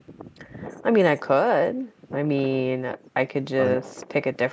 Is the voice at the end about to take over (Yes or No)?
No